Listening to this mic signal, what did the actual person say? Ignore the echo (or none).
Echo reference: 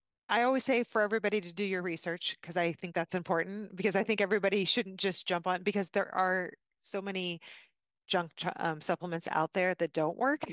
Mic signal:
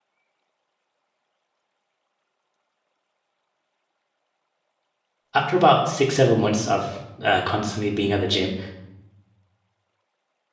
after about six, seven months of uh, constantly being at the gym,